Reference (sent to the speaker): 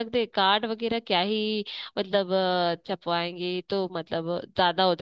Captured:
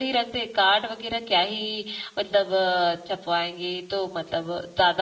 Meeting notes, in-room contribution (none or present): none